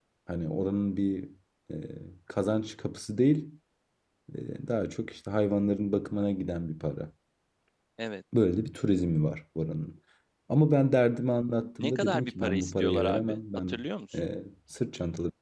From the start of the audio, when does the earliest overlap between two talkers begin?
12 s

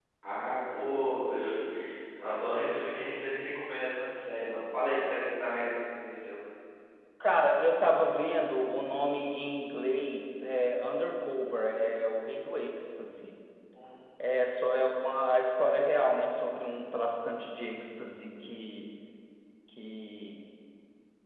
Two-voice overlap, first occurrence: none

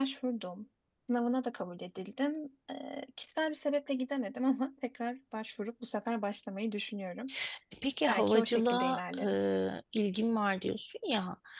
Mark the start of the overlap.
8 s

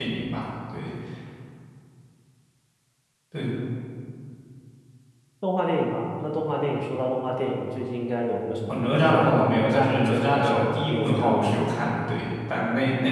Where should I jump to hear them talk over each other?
9 s

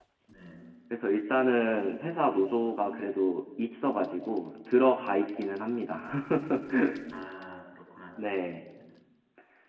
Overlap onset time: none

